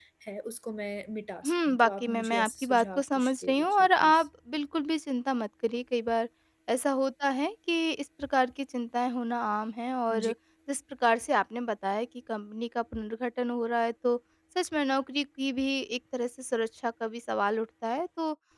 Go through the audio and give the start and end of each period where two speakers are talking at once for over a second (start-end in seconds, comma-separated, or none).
1.4-4.2